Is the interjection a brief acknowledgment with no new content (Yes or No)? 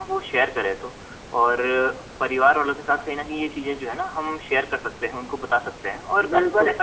Yes